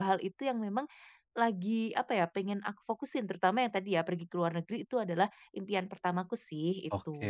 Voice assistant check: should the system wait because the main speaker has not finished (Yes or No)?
No